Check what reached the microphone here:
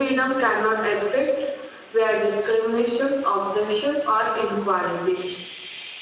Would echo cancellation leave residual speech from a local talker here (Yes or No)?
No